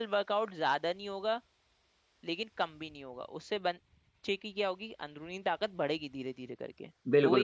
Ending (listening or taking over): taking over